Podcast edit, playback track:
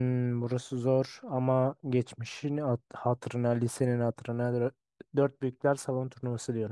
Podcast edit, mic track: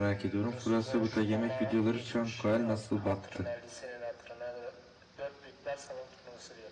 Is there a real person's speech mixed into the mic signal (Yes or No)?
Yes